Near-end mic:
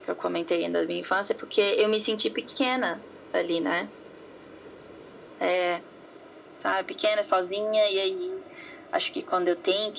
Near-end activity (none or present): none